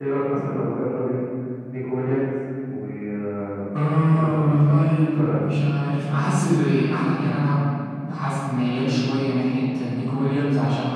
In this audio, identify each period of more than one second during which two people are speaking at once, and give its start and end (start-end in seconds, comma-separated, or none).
4.1-5.5